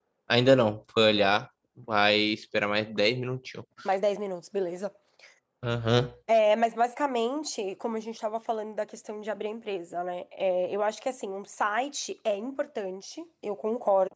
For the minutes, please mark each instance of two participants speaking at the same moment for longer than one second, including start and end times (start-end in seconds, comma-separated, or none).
none